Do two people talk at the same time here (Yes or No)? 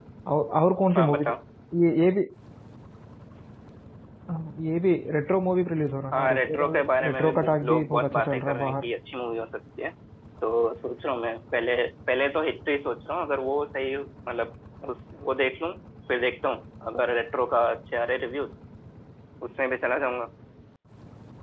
Yes